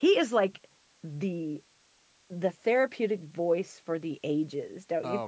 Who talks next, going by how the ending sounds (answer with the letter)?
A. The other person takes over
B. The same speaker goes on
A